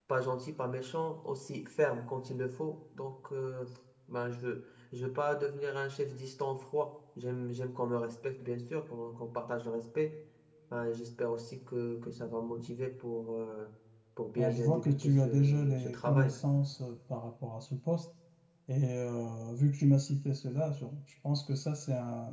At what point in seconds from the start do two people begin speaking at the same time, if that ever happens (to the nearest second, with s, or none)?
14 s